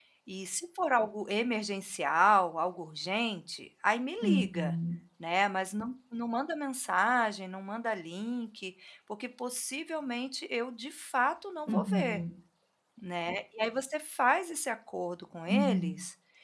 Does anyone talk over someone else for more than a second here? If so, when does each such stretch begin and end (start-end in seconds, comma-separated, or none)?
none